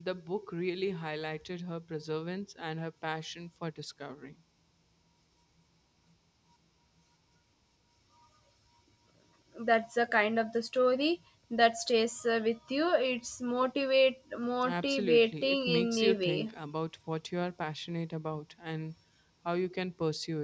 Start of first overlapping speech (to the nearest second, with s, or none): 15 s